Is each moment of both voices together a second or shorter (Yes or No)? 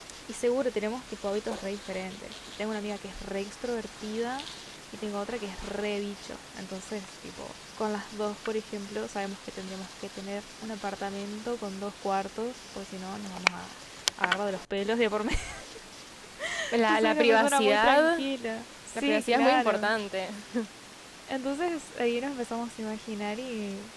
No